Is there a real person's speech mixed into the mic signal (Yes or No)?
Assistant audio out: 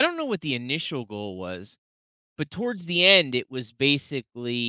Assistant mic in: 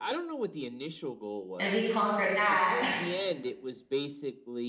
Yes